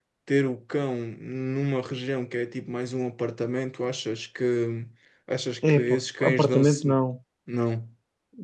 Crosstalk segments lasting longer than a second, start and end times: 5.7-7.0

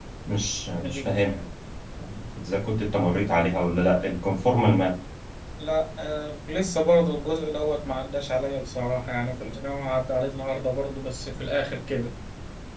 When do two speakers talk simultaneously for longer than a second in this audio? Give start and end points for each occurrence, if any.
none

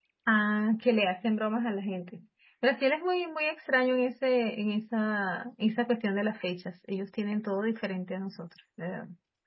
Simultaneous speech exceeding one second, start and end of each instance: none

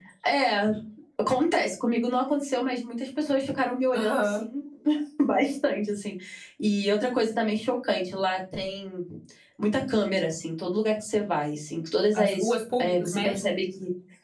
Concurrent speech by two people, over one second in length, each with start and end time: 12.2-13.6

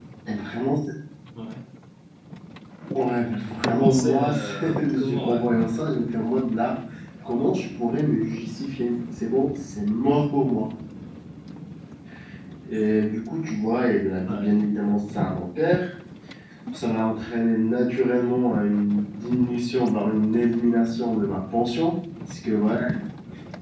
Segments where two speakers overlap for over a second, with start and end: 3.5-5.4

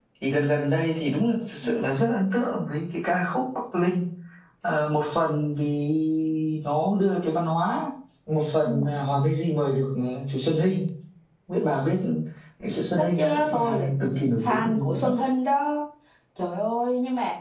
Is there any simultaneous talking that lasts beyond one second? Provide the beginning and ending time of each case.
13.0-15.1

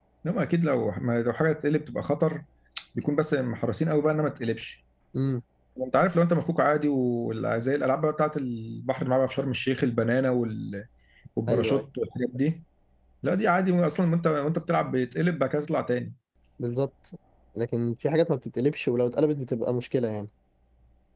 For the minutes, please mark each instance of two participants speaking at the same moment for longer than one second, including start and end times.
none

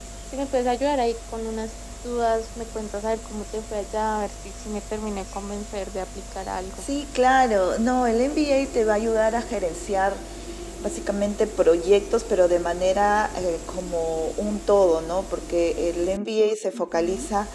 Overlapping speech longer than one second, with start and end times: none

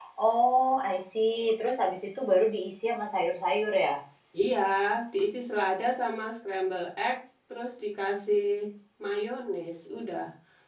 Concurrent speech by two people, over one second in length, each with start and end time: none

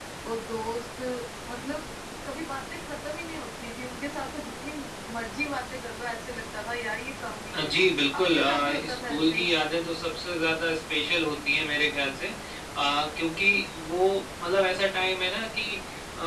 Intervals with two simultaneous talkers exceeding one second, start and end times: 8.2-9.4

